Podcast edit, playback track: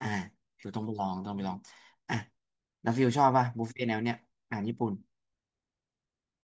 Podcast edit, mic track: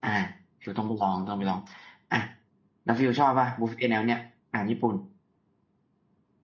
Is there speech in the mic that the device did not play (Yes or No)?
No